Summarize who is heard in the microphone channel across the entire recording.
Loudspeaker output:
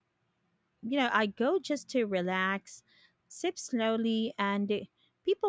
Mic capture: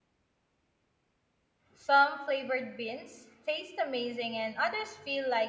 user only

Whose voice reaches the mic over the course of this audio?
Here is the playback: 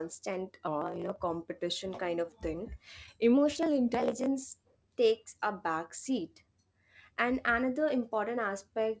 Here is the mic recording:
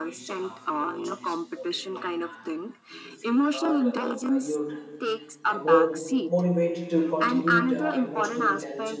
both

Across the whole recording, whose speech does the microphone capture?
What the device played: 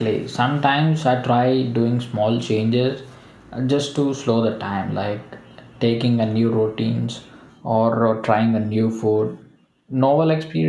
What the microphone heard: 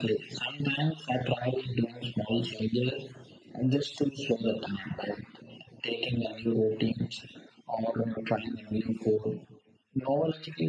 echo only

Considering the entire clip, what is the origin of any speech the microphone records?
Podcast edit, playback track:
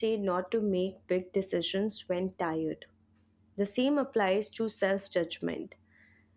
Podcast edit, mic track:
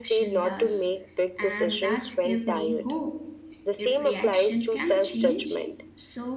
both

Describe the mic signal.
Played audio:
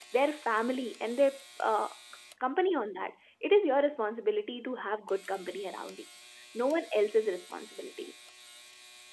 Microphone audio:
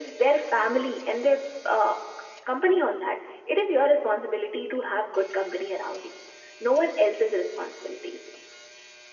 echo only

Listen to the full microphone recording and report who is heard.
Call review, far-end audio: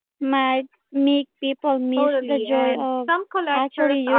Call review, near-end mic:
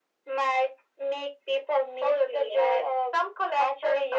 echo only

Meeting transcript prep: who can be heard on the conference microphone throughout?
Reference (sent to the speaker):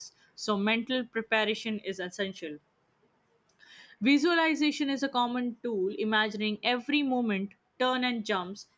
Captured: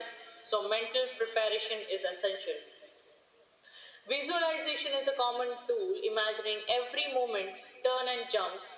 echo only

